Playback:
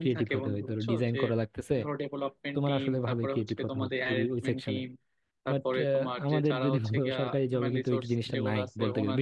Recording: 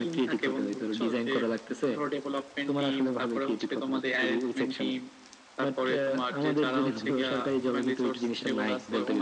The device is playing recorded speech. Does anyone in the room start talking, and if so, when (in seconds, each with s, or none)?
none